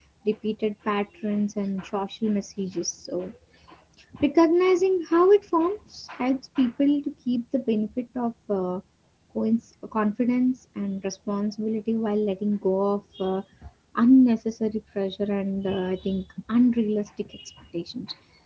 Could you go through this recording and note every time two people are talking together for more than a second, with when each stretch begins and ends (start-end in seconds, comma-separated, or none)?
none